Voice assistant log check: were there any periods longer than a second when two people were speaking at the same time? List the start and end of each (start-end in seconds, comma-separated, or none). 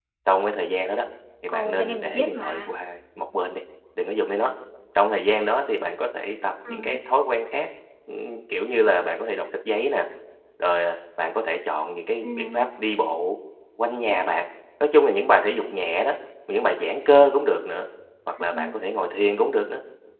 1.5-2.7